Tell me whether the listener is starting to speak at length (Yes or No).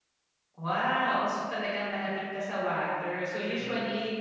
No